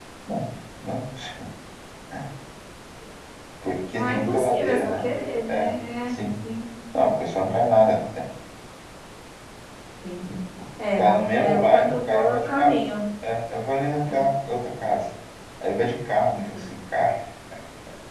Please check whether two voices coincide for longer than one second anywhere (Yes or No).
Yes